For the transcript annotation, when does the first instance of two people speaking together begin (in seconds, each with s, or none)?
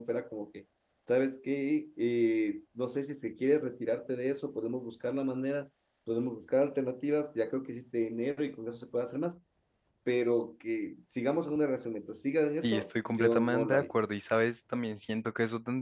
12.6 s